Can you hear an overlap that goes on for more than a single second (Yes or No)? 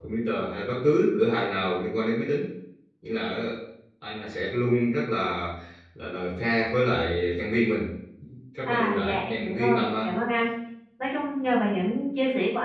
Yes